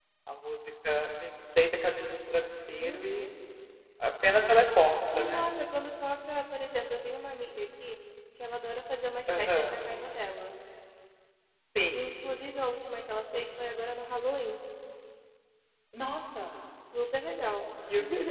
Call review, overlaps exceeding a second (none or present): none